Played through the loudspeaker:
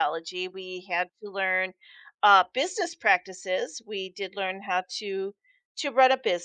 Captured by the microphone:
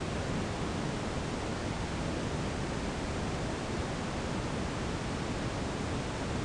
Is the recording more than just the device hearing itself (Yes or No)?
No